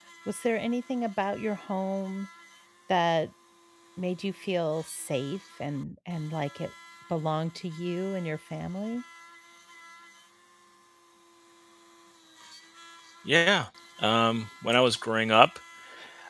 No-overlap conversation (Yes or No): Yes